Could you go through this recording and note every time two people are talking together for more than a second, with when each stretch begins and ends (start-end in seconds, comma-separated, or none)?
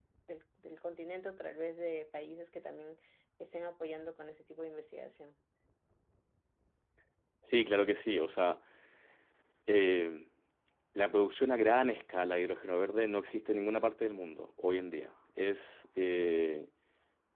none